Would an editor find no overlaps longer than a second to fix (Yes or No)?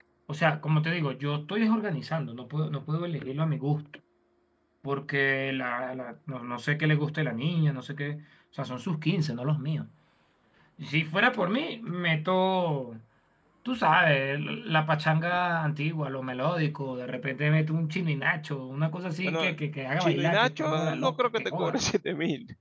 No